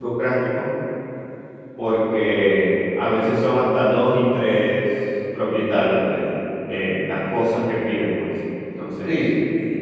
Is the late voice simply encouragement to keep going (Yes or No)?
No